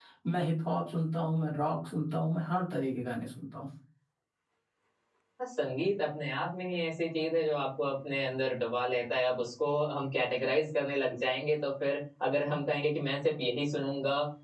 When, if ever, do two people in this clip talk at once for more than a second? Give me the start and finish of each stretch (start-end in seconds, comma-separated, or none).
none